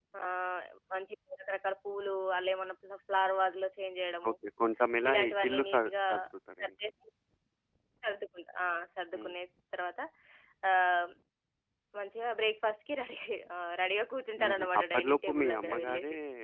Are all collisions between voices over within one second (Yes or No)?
No